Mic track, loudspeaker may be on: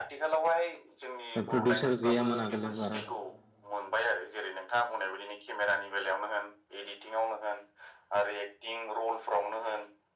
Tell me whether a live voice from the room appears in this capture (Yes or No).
Yes